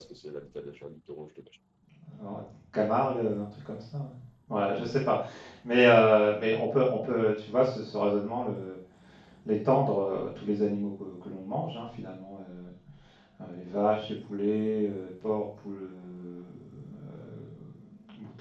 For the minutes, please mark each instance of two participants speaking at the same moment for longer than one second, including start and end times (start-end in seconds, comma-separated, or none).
none